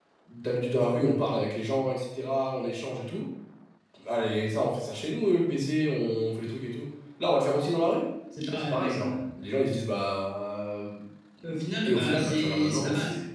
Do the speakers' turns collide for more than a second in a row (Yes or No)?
Yes